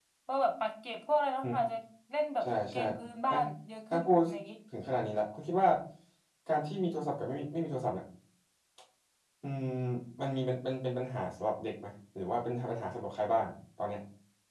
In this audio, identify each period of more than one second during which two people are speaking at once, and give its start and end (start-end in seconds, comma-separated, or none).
none